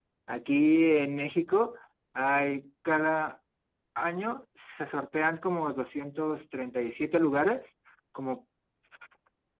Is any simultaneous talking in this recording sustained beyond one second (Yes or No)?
No